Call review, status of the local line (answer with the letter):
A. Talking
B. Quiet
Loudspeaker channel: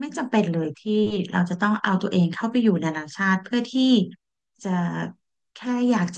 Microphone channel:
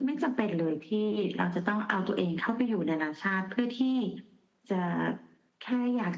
B